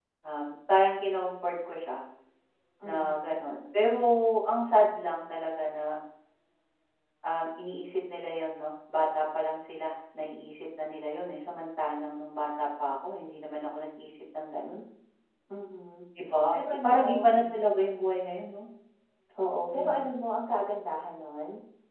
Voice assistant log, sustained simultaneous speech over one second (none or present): present